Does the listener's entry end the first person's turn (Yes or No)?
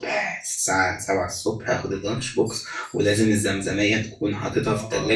Yes